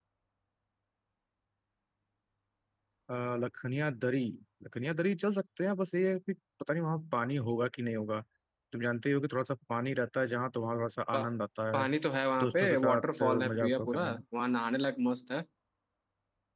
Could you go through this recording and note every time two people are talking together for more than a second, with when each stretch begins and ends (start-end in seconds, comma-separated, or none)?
12.4-14.2